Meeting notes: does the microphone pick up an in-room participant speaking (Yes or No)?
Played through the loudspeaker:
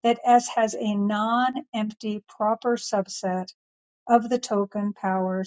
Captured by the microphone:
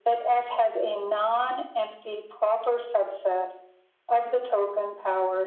No